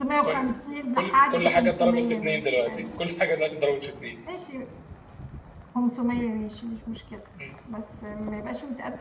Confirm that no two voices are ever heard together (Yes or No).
No